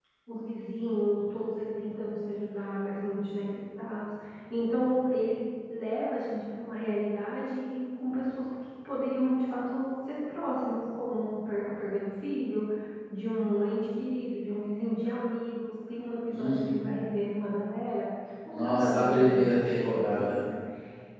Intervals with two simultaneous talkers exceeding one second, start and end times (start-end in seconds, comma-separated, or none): 18.5-20.3